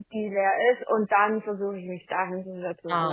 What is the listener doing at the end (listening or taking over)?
taking over